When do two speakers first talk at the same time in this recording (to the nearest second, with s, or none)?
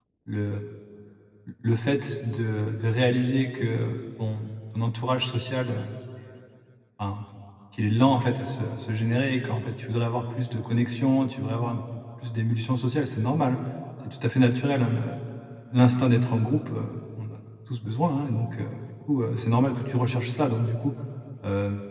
none